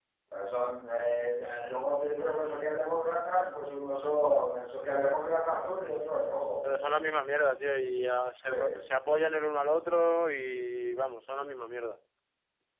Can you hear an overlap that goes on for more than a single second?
No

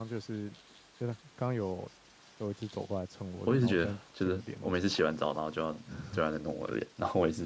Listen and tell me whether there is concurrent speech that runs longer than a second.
Yes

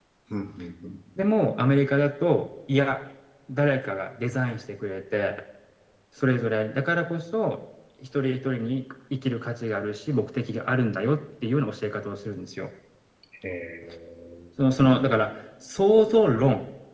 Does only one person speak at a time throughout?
Yes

